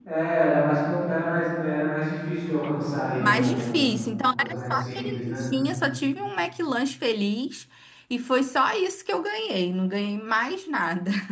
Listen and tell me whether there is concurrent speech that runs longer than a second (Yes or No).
Yes